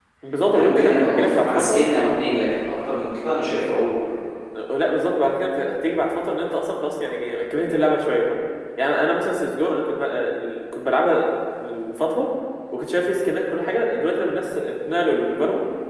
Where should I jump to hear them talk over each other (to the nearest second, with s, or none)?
1 s